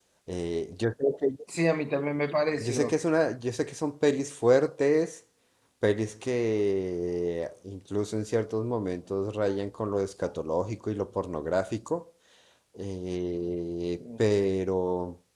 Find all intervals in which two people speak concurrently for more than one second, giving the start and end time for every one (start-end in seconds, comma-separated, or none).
none